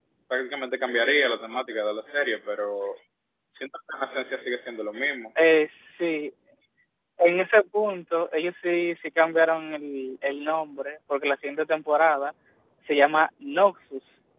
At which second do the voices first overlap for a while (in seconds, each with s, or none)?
none